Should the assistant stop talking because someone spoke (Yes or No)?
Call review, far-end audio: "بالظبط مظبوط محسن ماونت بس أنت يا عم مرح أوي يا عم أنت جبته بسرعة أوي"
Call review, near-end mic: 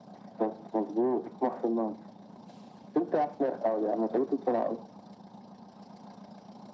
No